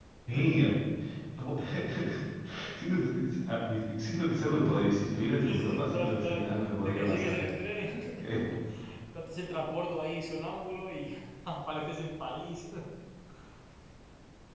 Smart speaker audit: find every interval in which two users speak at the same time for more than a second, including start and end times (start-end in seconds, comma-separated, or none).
5.4-7.5